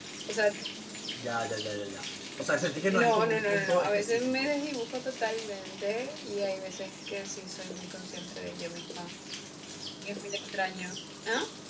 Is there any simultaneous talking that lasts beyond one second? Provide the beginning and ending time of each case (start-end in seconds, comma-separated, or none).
2.9-4.5